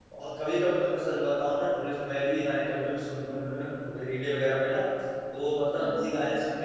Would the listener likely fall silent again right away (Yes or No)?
Yes